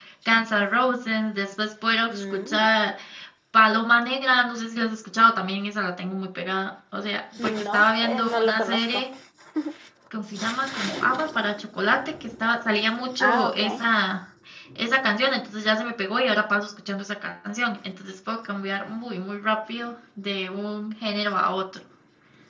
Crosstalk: present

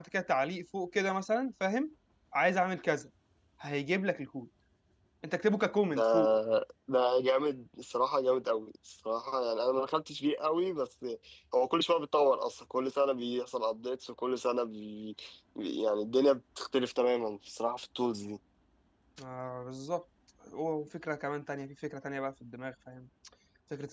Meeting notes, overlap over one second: none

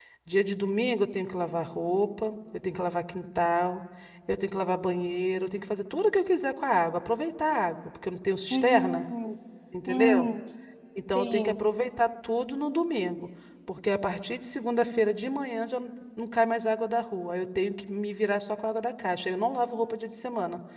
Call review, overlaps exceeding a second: none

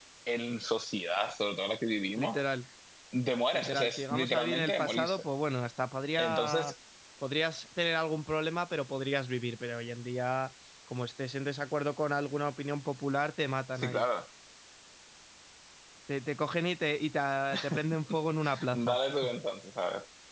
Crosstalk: present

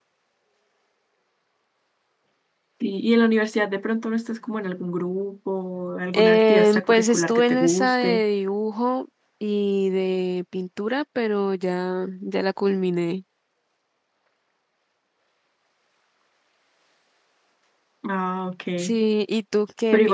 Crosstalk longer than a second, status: present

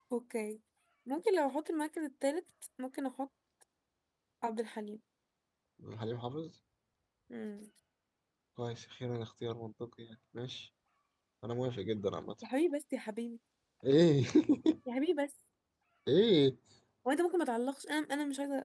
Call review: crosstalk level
none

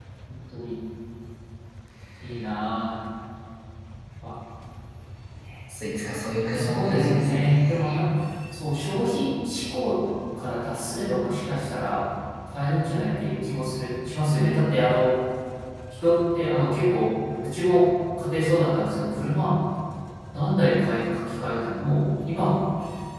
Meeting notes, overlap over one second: present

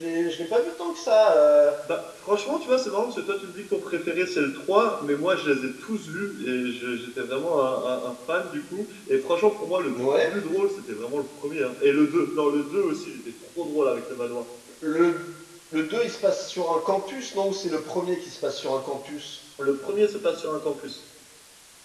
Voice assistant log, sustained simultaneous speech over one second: none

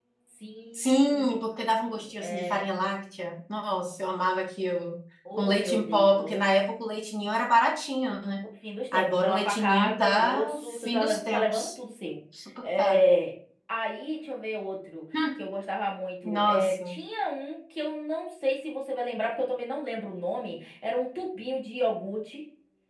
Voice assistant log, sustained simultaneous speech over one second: present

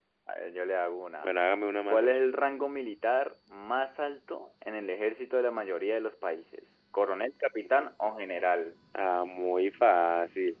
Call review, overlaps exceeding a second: none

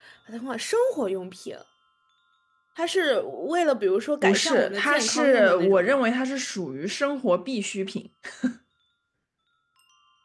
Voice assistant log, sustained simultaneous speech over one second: present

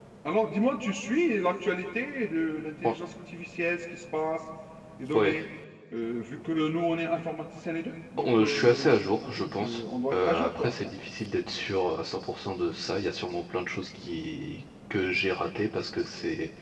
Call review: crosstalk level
present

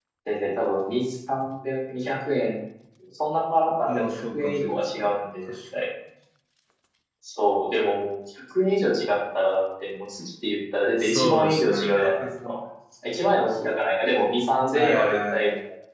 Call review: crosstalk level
present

